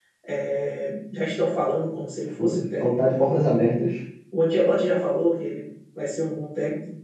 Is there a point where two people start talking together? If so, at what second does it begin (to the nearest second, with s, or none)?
2 s